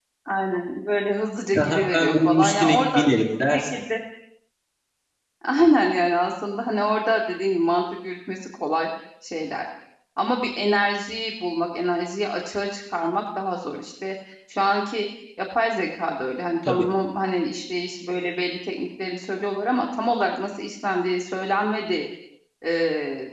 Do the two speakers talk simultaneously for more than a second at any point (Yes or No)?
Yes